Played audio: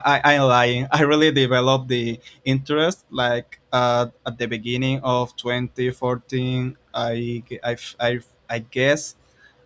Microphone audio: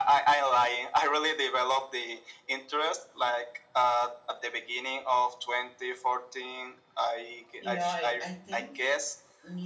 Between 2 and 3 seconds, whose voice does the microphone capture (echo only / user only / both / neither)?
echo only